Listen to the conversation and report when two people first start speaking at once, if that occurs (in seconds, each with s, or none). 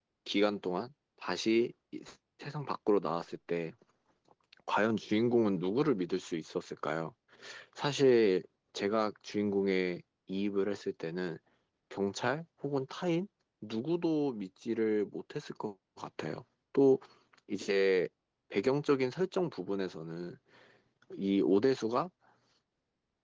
none